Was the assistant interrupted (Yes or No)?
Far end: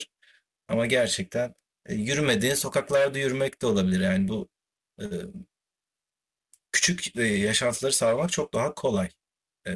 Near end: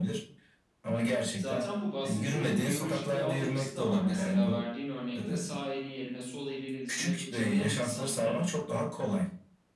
Yes